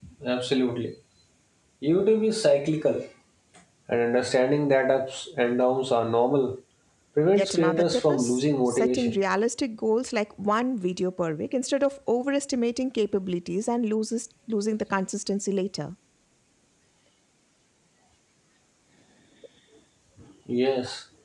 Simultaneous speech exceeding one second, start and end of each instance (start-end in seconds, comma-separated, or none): 7.3-9.2